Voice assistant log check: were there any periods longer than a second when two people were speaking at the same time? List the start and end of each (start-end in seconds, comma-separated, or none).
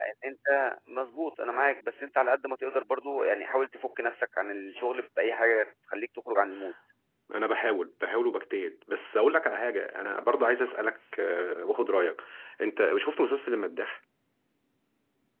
none